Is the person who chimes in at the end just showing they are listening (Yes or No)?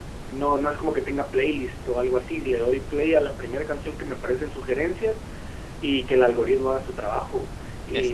Yes